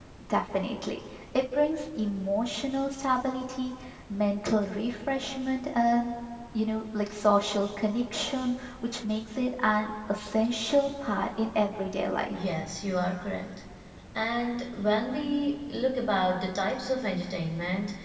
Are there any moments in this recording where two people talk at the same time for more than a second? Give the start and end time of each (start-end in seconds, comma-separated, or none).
none